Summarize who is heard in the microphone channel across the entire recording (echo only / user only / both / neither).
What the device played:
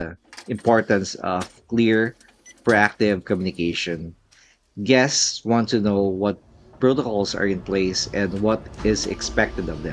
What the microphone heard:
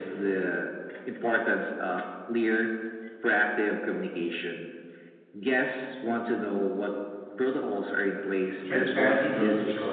both